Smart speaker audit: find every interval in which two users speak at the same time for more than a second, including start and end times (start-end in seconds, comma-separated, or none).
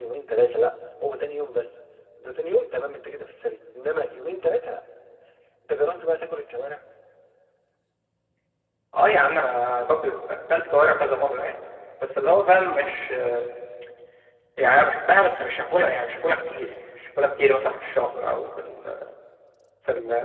none